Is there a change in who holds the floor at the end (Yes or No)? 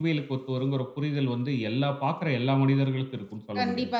Yes